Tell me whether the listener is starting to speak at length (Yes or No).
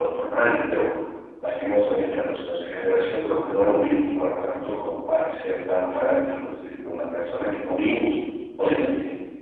No